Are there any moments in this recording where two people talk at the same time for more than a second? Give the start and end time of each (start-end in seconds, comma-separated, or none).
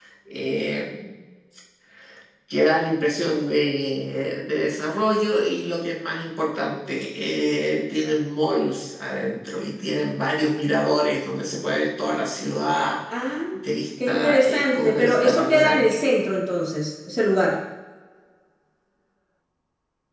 14.1-15.8